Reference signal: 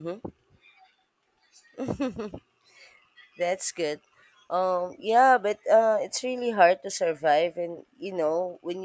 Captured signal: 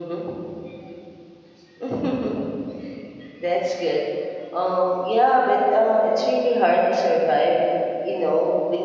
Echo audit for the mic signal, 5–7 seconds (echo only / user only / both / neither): echo only